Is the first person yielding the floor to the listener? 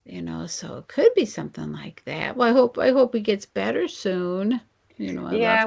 Yes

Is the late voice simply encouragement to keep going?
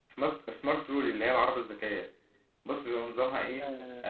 No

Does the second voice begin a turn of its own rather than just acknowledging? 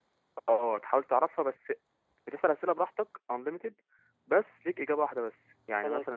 No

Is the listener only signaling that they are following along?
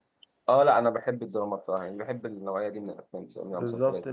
No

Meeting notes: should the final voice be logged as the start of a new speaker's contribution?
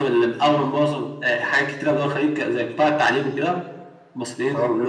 No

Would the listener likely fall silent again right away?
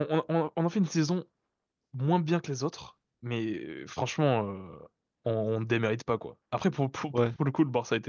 Yes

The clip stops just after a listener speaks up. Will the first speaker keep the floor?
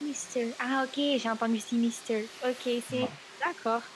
Yes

